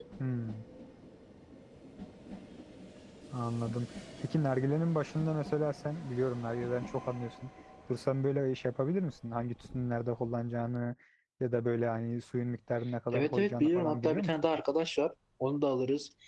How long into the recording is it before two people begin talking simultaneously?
13 s

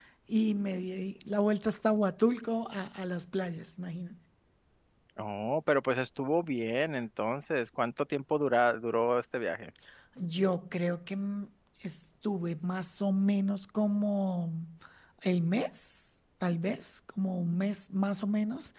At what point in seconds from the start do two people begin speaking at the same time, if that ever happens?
none

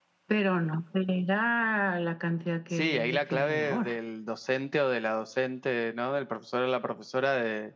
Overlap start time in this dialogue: 3 s

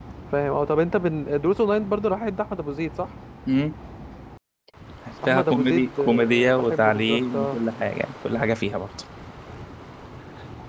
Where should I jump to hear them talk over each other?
5 s

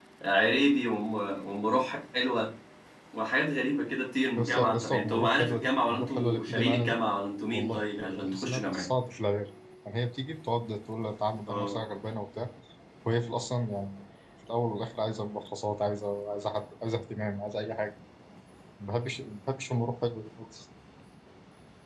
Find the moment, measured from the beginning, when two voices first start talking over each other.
4 s

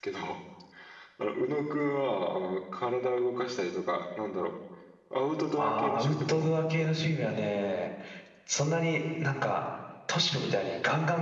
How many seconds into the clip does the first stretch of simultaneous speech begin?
6 s

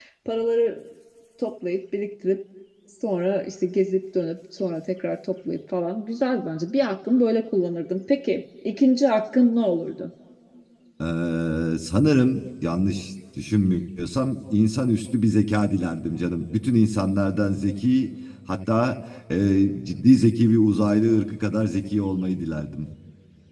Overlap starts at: none

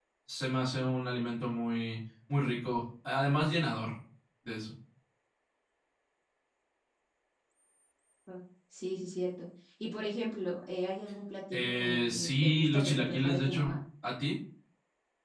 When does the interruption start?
12 s

